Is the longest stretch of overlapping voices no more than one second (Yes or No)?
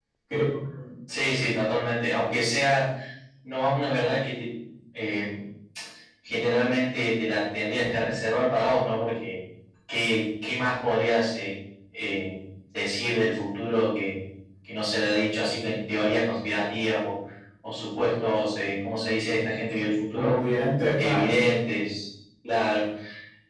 Yes